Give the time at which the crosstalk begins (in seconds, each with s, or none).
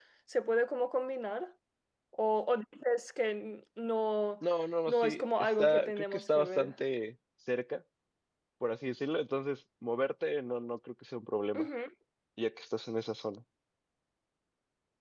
4.9 s